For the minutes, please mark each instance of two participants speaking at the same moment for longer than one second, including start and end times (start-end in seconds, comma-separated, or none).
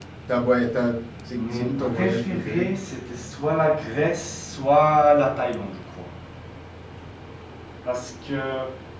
1.3-2.7